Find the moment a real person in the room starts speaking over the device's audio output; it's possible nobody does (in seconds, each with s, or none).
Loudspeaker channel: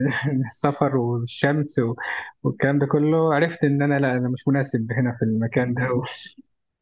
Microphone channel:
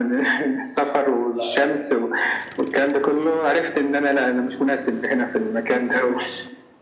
1.3 s